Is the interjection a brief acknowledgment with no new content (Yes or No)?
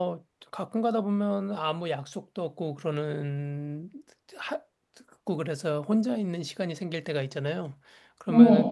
Yes